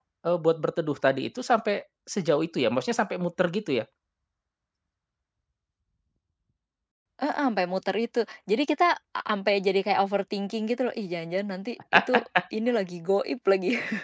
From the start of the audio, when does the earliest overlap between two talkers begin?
none

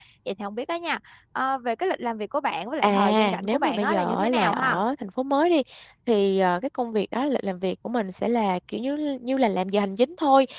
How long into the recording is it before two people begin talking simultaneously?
2.8 s

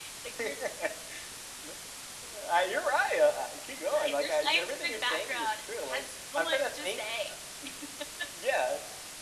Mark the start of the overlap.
3.9 s

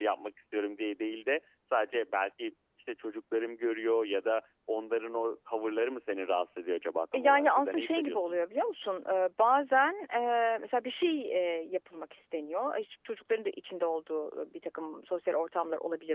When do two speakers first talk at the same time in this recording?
7.1 s

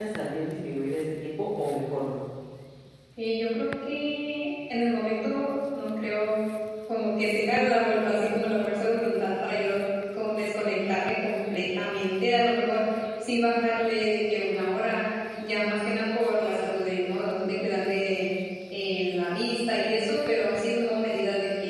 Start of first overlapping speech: none

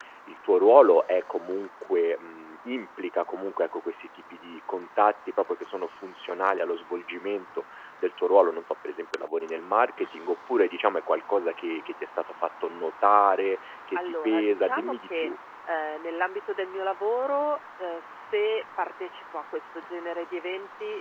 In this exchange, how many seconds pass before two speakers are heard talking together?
13.9 s

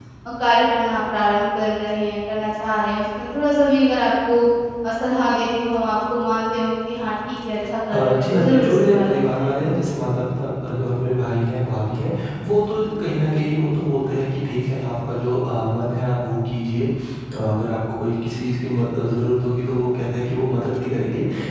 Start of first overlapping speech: 7.9 s

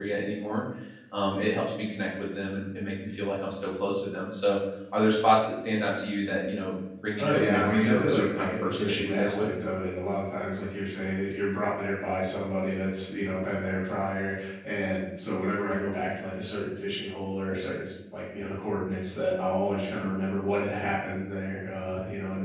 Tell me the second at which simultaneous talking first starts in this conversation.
7.2 s

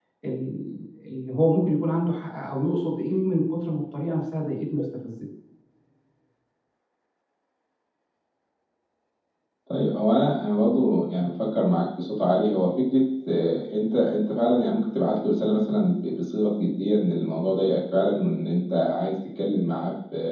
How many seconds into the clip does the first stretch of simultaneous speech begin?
none

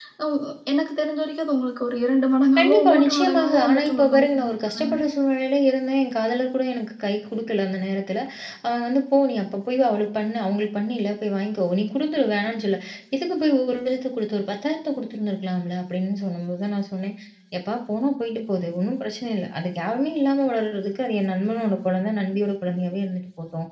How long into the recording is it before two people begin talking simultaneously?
2.6 s

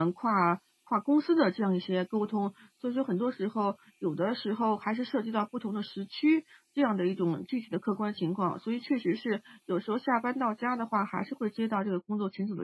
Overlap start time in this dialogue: none

